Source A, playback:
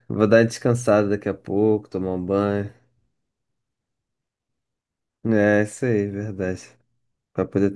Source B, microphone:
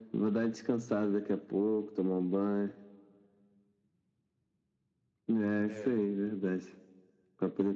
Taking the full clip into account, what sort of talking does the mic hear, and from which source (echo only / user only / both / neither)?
both